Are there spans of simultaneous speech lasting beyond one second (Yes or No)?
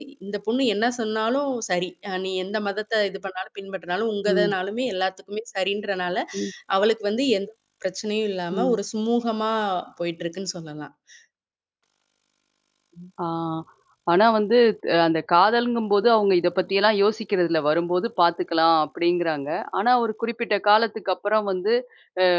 No